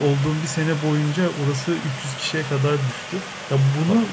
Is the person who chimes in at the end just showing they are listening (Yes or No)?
Yes